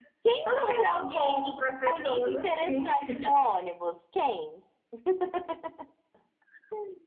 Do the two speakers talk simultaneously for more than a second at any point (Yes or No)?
Yes